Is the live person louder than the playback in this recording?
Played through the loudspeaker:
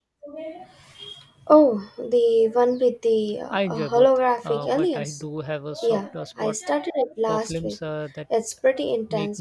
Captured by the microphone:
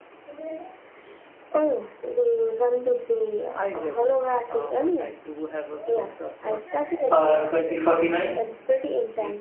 Yes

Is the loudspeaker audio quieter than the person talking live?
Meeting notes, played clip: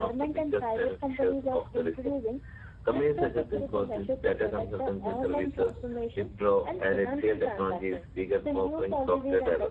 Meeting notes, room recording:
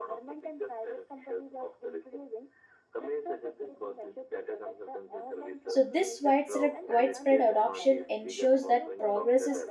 Yes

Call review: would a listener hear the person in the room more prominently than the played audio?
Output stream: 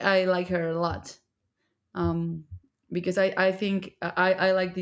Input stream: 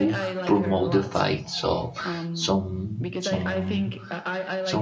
Yes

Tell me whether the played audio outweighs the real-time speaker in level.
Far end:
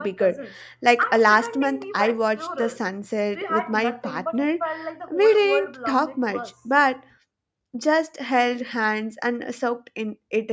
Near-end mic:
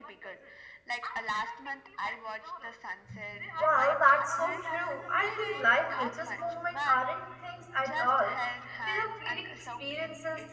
No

